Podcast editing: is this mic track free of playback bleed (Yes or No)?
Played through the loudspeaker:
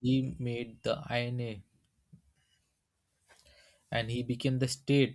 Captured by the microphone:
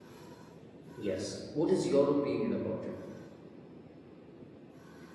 Yes